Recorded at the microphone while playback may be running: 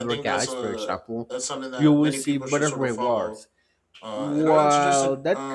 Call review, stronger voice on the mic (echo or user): user